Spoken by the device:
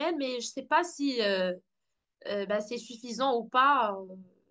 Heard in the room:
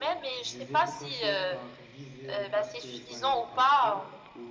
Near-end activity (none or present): present